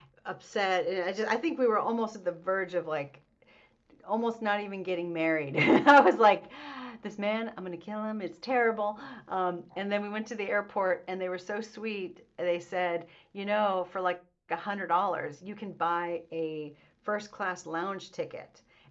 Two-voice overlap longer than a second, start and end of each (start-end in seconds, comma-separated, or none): none